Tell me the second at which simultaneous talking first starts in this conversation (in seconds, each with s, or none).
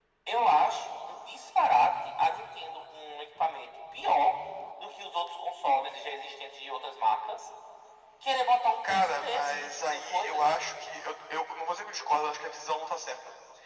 8.8 s